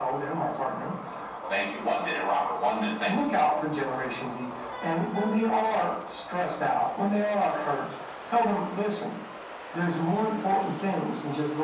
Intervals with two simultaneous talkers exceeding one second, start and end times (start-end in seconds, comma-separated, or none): none